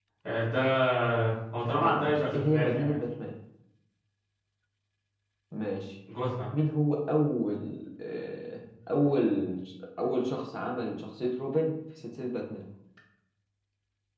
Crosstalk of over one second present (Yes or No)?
Yes